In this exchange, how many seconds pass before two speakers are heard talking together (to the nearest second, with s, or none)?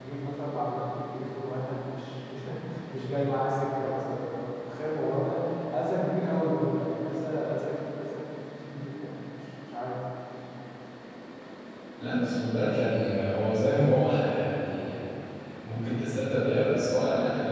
none